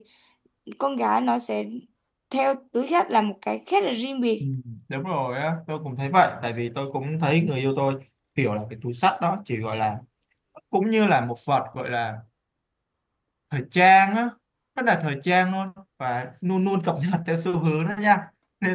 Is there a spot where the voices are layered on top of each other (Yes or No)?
No